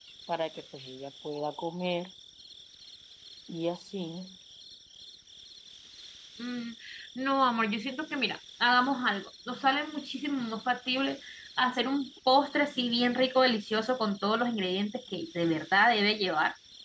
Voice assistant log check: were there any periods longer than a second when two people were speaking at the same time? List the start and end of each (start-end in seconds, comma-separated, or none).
none